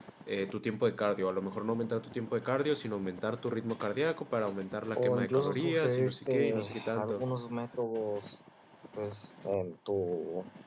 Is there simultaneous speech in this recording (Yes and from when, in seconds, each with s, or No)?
Yes, from 5.0 s